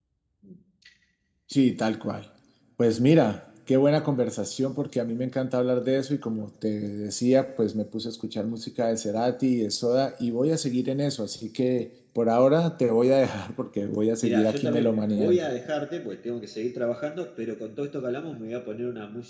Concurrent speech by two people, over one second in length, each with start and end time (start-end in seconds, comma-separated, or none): 14.2-15.4